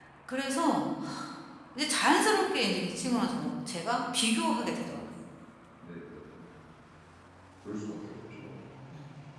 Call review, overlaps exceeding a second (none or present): none